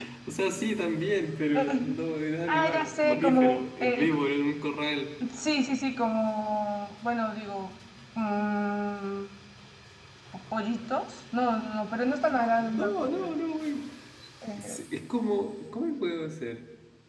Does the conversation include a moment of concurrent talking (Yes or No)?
Yes